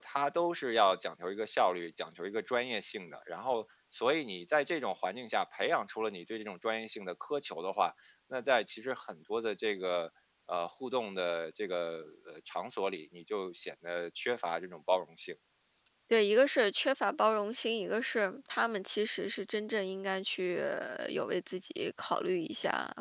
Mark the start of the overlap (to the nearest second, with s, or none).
none